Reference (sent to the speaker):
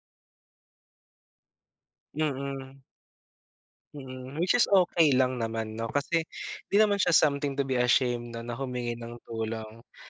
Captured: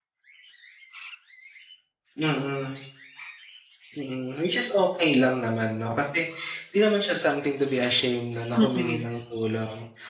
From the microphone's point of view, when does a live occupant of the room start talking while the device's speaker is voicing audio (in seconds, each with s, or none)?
8.6 s